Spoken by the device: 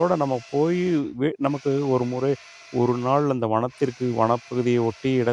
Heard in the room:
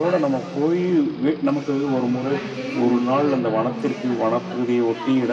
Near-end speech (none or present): present